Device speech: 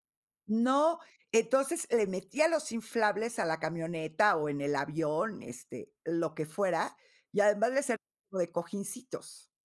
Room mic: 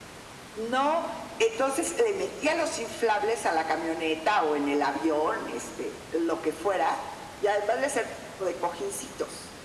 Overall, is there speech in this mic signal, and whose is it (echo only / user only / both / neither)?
echo only